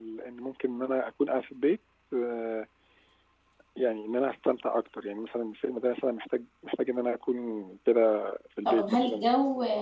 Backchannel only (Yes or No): No